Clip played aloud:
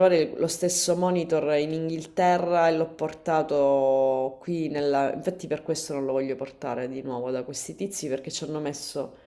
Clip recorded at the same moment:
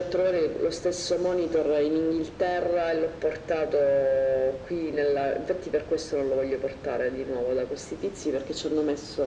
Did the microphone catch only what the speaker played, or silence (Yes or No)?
Yes